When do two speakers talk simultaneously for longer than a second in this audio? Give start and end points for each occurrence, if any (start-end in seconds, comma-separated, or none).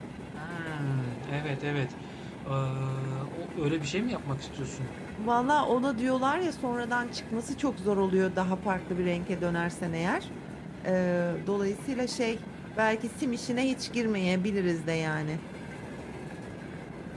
none